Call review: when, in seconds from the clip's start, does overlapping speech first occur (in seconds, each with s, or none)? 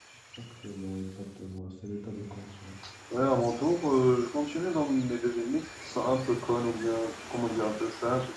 none